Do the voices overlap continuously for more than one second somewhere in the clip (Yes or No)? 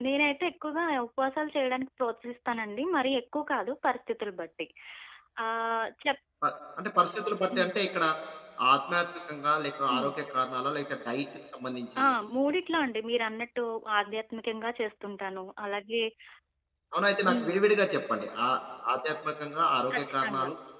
No